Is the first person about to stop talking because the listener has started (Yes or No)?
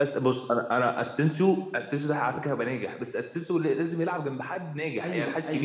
Yes